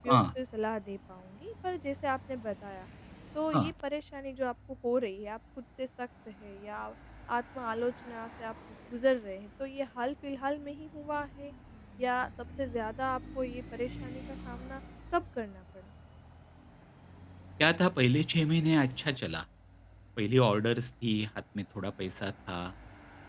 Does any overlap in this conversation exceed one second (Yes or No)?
No